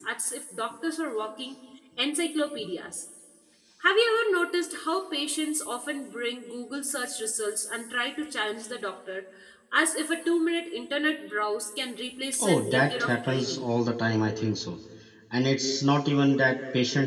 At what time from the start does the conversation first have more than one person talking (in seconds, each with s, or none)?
12.4 s